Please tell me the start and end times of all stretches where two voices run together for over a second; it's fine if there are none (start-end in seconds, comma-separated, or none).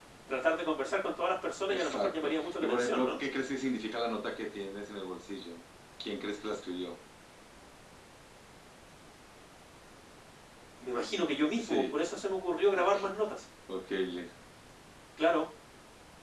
1.7-3.1